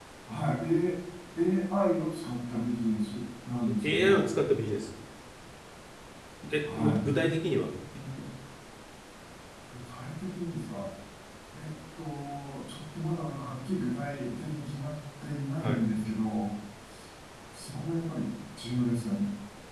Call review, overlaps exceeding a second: none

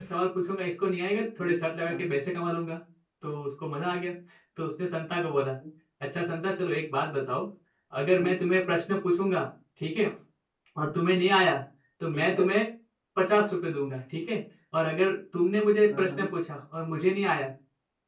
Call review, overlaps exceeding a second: none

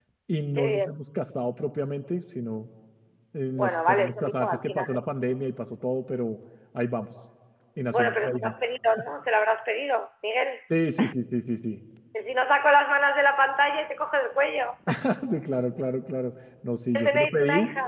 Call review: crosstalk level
present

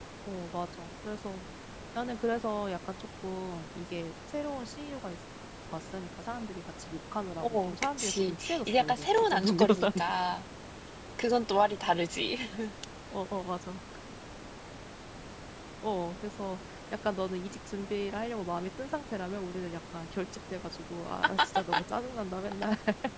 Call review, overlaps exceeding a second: present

